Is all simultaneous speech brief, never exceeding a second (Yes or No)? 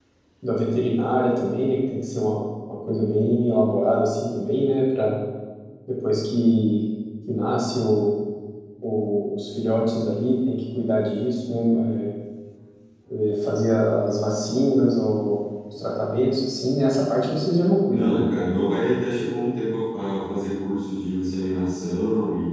Yes